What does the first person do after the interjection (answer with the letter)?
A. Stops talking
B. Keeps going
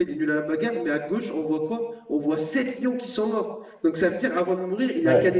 B